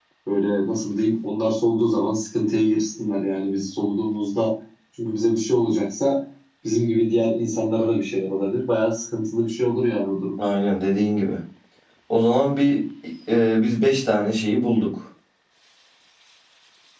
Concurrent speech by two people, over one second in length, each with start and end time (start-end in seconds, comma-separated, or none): none